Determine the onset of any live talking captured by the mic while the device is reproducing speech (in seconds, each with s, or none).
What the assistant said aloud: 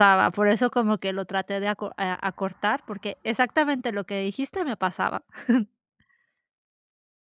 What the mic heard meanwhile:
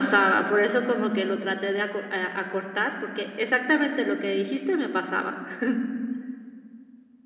none